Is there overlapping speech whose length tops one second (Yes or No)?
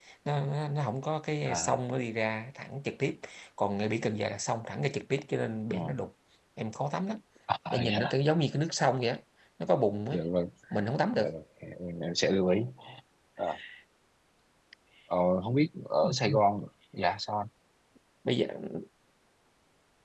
No